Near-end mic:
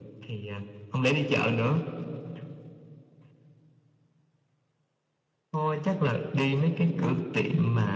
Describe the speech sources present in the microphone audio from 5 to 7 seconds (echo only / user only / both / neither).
echo only